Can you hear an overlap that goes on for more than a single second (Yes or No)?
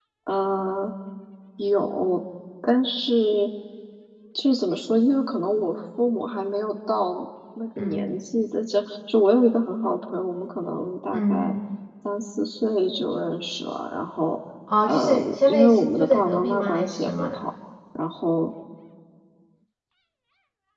Yes